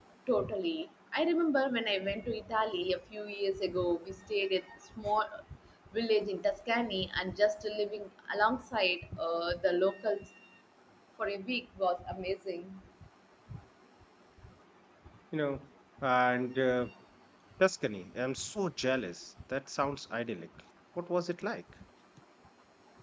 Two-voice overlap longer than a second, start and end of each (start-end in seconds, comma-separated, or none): none